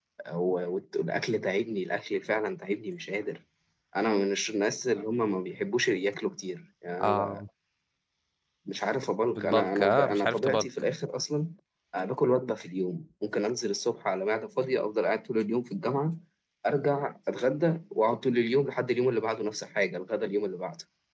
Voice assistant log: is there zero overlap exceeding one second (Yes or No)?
No